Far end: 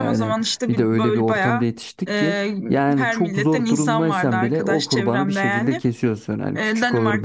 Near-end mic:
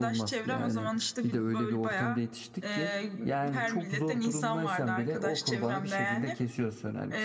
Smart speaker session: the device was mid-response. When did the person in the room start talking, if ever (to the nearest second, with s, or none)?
none